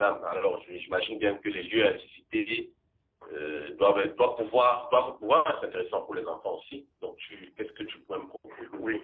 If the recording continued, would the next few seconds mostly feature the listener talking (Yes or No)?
Yes